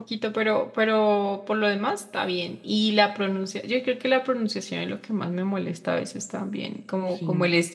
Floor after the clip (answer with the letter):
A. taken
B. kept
B